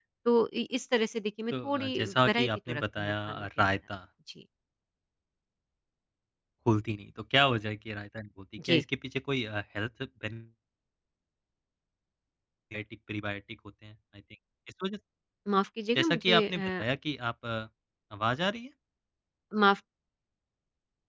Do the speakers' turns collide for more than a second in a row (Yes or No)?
Yes